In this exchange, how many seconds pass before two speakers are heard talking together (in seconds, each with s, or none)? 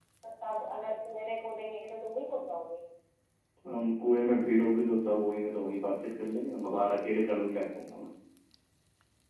none